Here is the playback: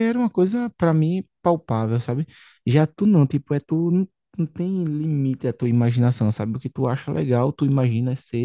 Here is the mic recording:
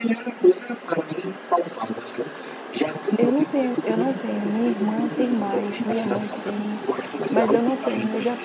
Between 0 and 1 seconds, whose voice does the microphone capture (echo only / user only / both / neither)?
echo only